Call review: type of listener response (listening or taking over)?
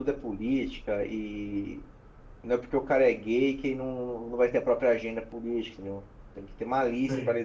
listening